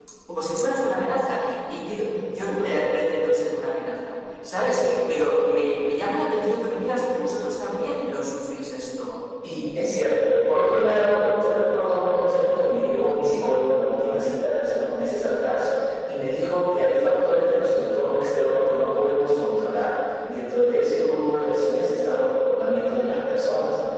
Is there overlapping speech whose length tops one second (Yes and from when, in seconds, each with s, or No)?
No